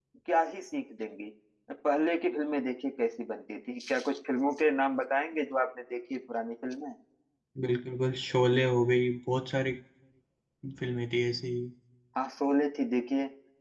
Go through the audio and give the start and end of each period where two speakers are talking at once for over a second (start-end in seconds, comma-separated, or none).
none